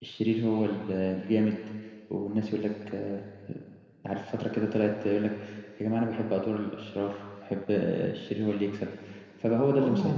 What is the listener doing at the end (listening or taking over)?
taking over